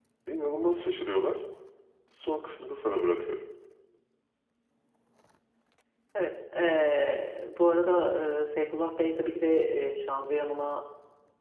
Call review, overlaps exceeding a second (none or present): none